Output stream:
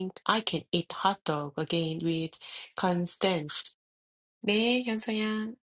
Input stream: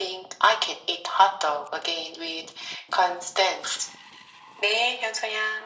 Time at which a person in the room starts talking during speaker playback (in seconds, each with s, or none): none